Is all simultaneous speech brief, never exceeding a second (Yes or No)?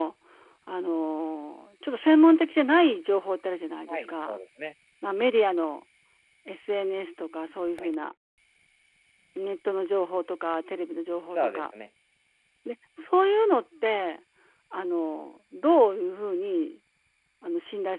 Yes